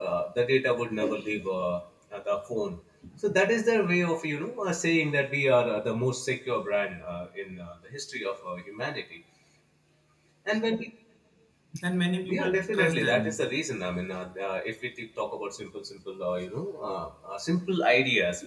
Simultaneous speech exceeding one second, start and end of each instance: 12.3-13.5

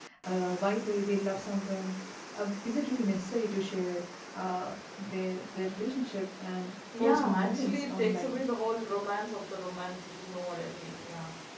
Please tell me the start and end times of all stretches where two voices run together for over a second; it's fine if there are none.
7.0-8.4

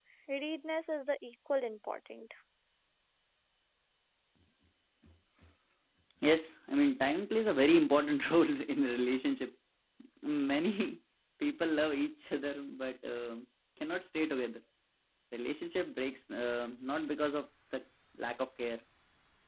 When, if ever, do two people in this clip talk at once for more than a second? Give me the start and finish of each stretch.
none

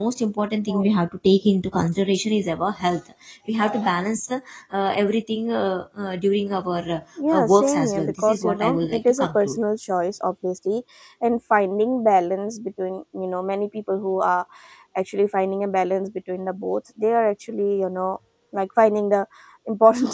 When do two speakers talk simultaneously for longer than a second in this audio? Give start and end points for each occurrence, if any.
7.3-9.6

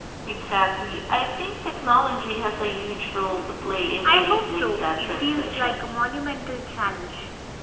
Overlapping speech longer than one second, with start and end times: 4.0-5.8

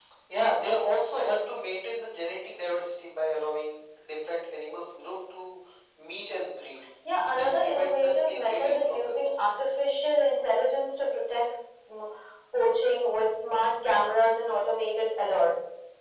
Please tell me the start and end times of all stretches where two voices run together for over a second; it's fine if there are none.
7.3-9.2

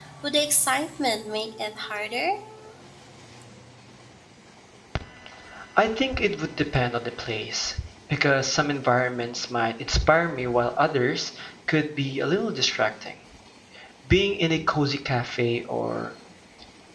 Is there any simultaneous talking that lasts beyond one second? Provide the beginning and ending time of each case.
none

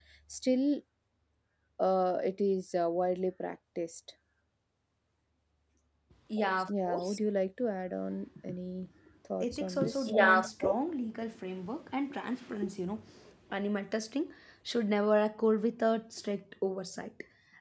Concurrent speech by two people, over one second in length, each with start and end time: 9.4-10.8

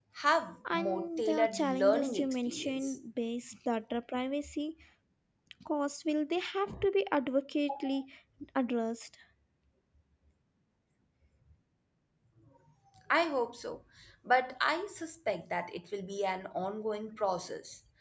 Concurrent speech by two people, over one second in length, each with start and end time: 0.7-3.0

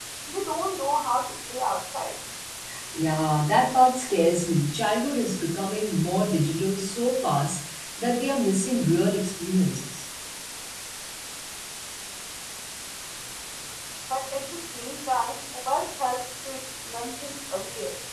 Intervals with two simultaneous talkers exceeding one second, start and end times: none

